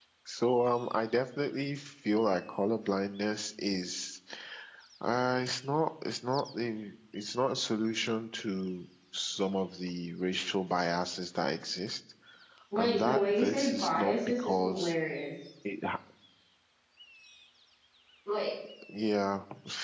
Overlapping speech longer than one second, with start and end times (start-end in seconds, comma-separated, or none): 12.8-14.9